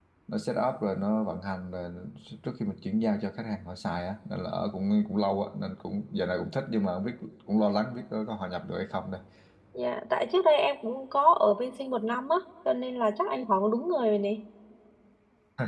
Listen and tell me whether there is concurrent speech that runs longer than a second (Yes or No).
No